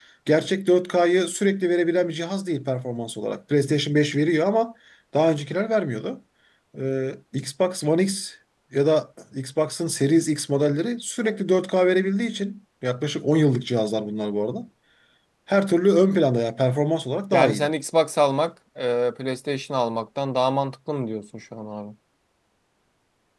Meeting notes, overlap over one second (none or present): none